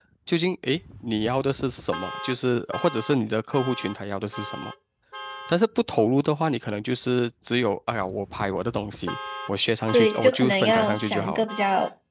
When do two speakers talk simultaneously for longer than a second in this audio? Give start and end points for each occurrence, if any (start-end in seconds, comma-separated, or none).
9.9-11.4